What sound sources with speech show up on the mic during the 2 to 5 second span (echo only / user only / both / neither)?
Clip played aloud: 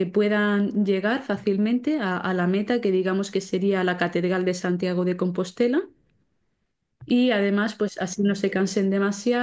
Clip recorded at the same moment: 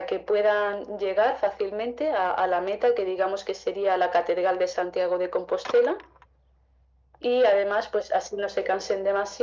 echo only